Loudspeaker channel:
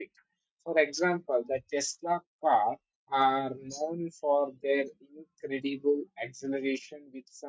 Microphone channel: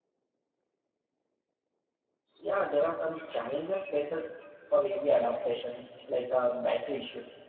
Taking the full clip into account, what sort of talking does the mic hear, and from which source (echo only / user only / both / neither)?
user only